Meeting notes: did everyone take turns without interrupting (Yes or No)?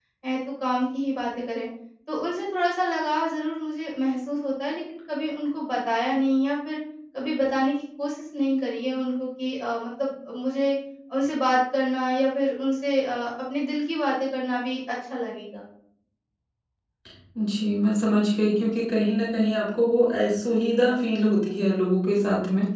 Yes